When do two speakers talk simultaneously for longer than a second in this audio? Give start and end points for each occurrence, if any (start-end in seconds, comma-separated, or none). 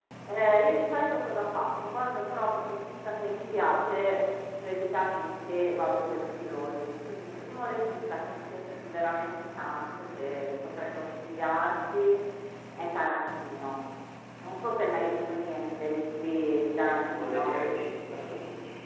none